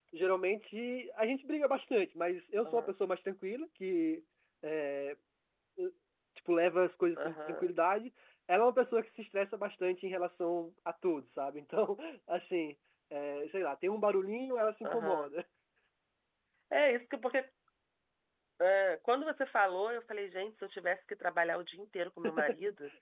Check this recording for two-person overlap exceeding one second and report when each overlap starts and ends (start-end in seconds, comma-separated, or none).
none